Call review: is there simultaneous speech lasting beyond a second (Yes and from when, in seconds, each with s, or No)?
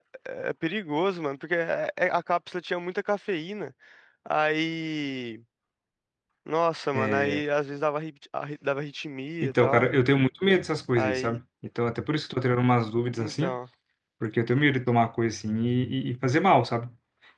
No